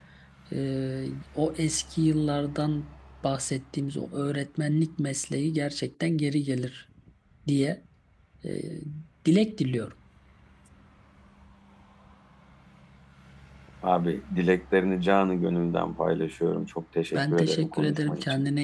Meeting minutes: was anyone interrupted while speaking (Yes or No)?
Yes